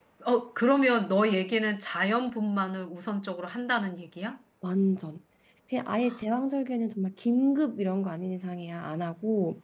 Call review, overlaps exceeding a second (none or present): none